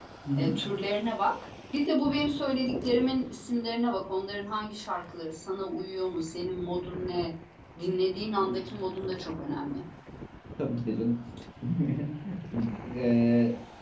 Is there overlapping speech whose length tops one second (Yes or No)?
No